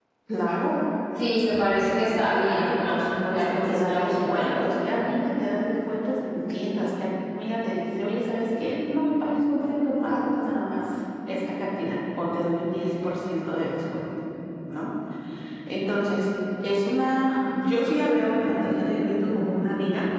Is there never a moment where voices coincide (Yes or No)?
No